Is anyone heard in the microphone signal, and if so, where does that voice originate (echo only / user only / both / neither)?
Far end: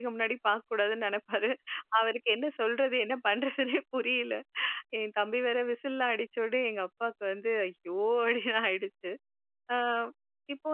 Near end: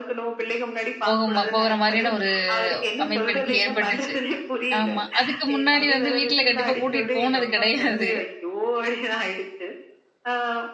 both